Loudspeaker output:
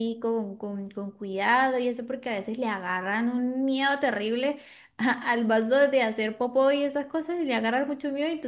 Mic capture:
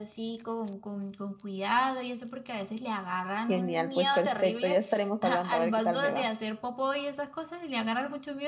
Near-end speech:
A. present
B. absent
A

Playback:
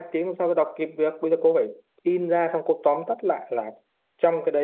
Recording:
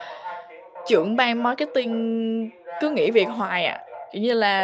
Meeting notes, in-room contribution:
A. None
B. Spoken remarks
B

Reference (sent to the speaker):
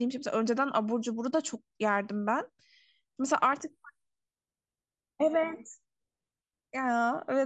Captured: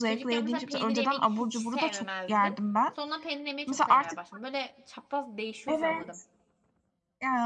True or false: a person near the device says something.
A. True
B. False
A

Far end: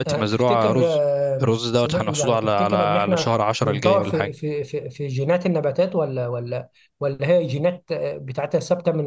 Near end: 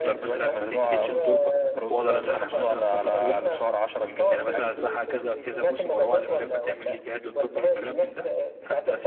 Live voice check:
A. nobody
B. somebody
B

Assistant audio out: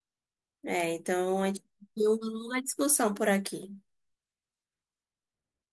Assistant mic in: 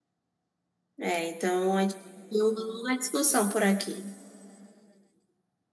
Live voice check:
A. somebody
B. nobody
B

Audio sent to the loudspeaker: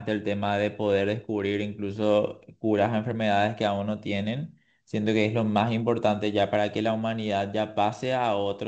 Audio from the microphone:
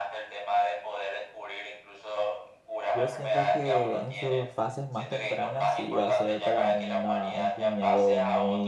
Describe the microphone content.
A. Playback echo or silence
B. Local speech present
B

